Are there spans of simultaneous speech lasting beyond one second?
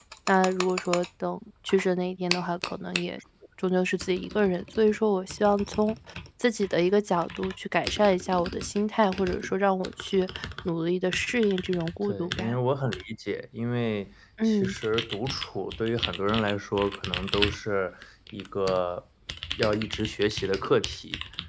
No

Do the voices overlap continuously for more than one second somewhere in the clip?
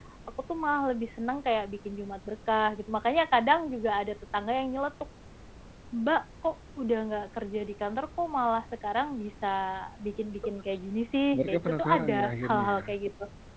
Yes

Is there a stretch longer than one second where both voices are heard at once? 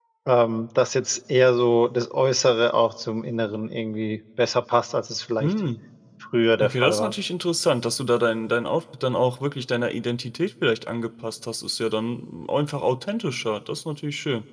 No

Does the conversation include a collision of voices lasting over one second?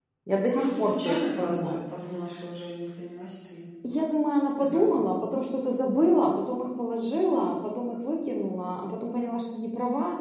Yes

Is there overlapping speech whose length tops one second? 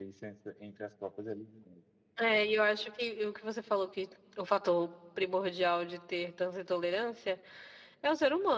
No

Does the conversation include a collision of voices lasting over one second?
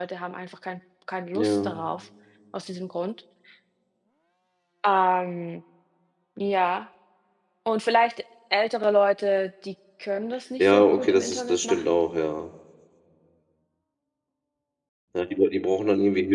Yes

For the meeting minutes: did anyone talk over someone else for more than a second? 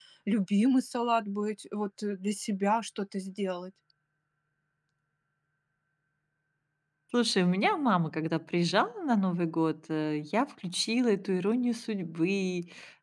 No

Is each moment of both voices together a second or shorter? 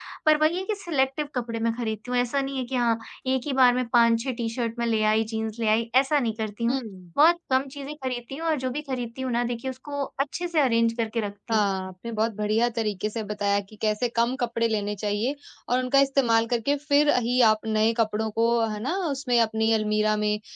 Yes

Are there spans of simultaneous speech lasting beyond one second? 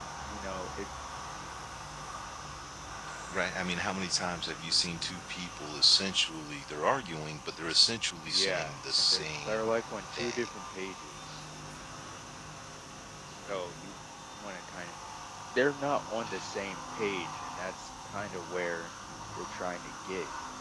Yes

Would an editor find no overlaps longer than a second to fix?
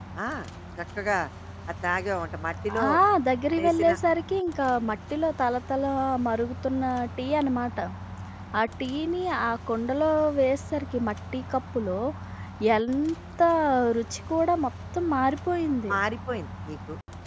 Yes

